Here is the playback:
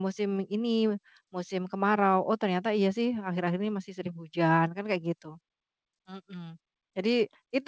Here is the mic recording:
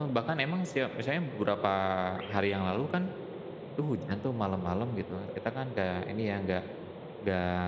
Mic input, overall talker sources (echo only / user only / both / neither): user only